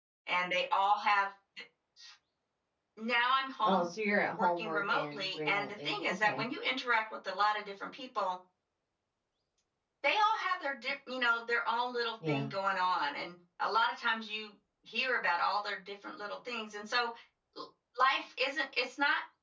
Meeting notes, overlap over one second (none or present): present